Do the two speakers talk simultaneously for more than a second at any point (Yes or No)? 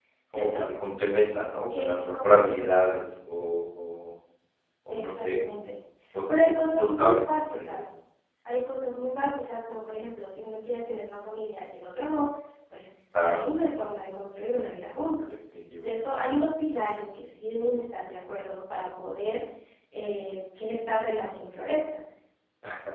Yes